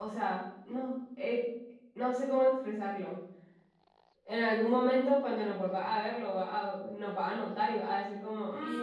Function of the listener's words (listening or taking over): taking over